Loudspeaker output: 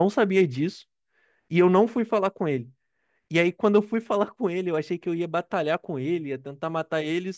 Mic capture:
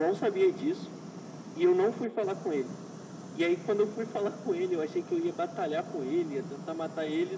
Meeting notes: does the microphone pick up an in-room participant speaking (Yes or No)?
No